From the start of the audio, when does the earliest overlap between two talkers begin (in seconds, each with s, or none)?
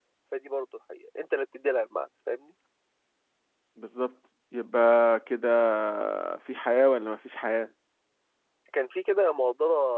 none